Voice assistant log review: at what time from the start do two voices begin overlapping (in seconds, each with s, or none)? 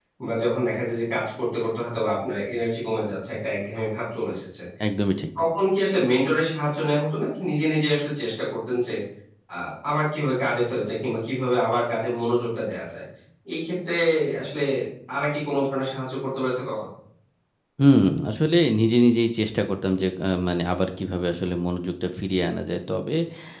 none